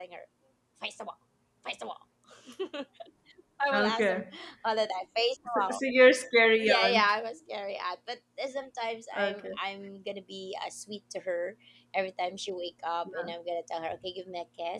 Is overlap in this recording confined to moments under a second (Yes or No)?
Yes